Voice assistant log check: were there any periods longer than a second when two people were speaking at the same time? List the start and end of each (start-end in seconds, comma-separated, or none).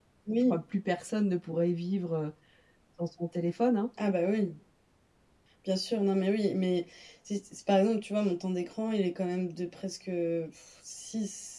none